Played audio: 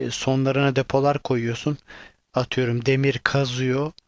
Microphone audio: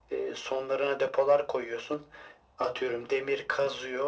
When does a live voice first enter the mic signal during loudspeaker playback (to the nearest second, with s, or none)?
none